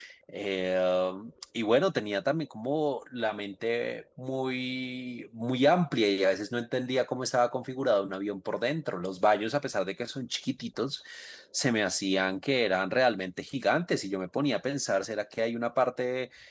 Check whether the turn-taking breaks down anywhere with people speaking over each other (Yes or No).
No